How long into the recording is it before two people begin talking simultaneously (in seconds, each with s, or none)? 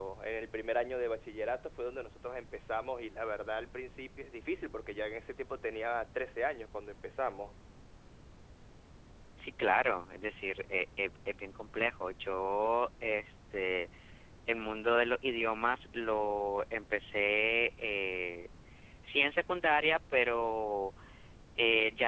none